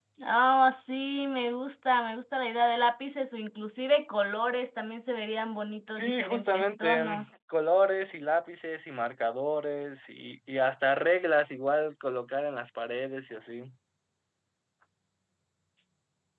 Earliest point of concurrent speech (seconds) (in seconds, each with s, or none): 6.0 s